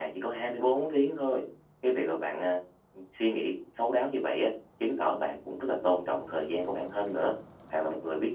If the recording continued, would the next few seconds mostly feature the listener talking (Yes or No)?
No